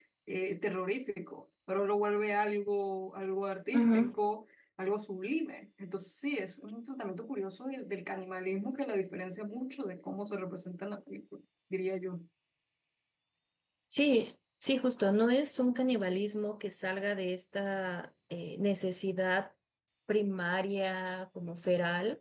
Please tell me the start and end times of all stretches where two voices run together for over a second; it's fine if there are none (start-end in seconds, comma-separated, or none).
none